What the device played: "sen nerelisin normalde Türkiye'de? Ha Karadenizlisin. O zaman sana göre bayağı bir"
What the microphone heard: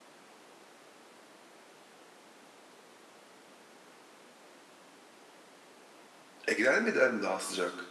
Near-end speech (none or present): present